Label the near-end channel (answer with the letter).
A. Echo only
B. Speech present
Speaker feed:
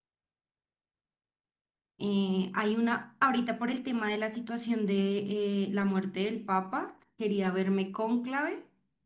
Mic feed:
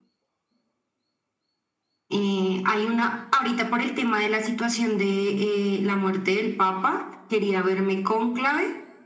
A